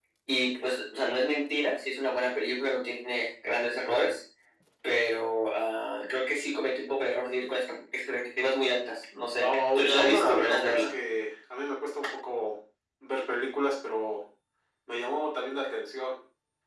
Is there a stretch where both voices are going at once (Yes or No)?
Yes